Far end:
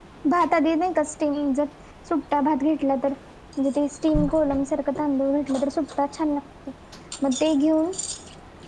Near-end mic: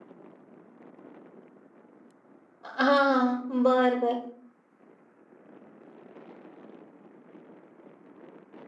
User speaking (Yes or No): Yes